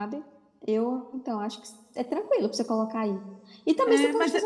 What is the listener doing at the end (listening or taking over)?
taking over